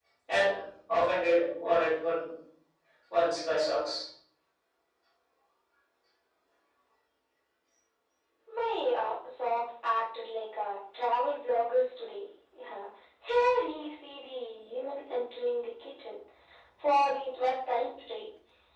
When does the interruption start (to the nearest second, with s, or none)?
none